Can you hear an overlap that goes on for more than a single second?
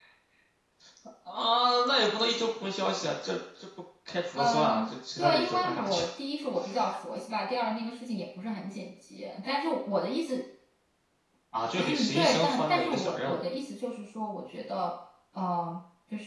Yes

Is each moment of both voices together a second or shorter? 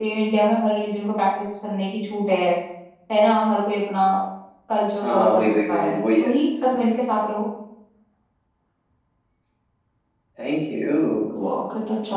No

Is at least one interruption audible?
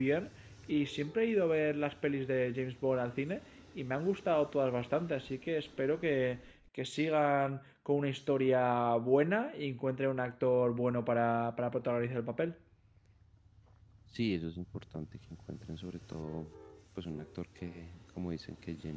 No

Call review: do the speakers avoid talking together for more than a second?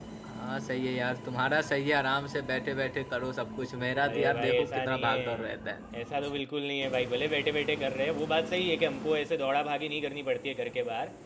No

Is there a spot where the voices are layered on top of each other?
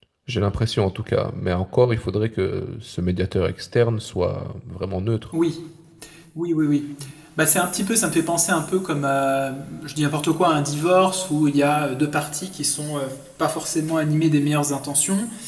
No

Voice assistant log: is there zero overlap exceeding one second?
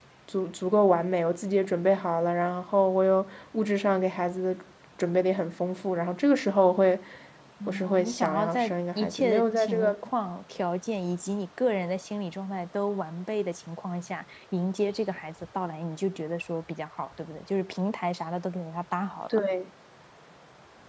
No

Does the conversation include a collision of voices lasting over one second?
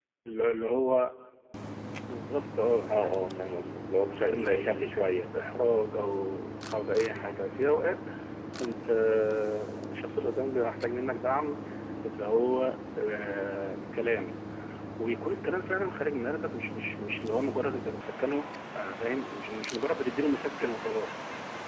Yes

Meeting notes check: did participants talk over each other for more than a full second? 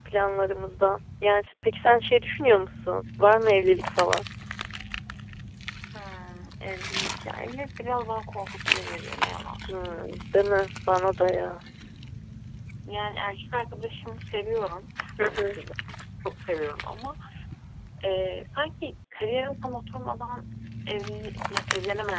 No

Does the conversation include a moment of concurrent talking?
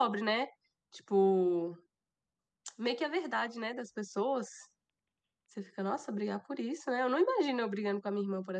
No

